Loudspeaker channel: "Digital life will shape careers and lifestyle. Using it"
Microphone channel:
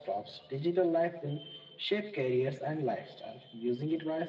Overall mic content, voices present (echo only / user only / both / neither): echo only